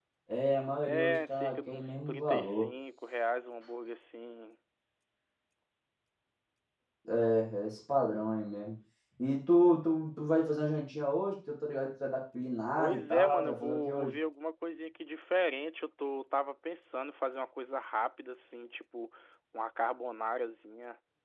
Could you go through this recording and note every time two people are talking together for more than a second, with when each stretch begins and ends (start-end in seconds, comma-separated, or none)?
0.8-2.7, 12.8-14.1